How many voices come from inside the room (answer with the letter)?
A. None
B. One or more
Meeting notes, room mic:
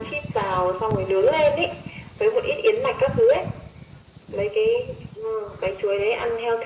A